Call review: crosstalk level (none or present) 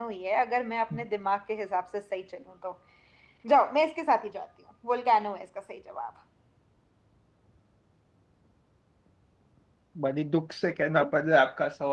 none